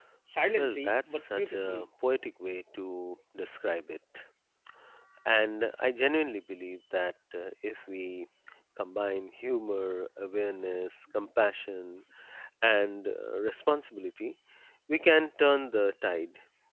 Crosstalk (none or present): present